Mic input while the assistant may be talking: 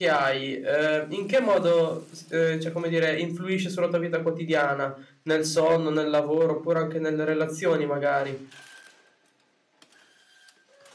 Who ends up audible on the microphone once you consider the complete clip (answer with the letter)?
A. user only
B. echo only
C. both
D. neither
A